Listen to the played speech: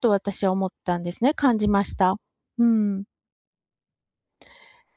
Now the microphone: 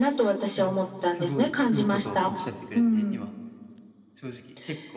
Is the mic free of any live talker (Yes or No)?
No